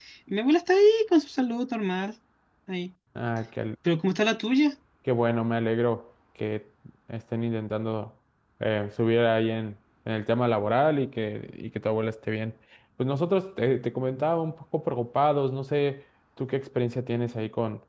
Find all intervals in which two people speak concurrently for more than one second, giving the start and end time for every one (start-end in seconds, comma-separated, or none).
none